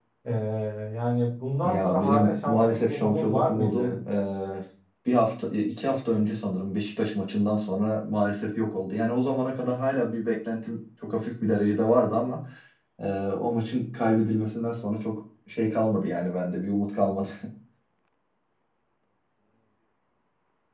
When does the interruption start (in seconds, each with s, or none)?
1.6 s